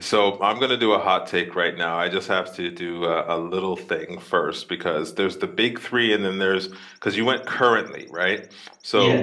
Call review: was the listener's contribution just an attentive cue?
Yes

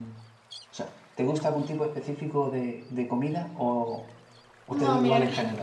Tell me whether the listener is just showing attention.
No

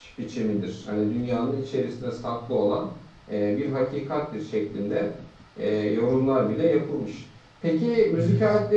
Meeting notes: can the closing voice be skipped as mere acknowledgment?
Yes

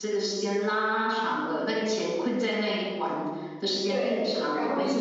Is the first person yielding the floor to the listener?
Yes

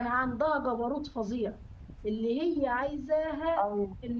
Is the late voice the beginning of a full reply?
No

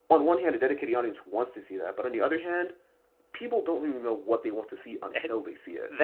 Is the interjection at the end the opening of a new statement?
Yes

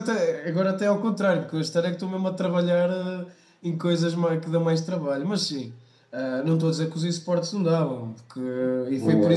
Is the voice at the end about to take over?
No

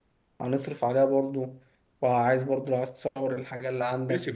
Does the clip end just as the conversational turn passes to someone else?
Yes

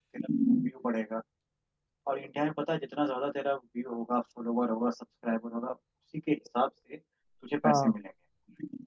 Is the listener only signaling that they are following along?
Yes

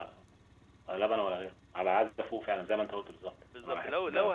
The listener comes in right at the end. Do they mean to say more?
Yes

